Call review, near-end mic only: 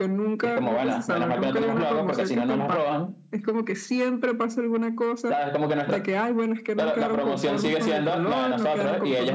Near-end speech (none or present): none